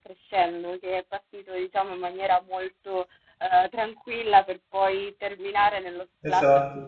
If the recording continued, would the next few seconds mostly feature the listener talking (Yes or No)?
No